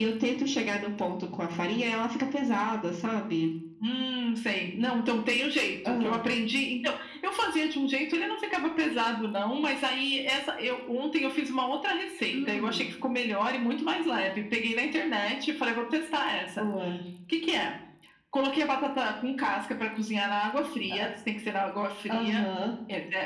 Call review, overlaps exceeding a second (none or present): none